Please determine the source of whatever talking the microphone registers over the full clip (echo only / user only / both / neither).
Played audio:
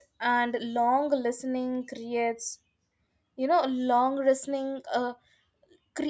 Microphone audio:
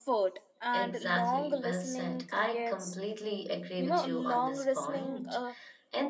both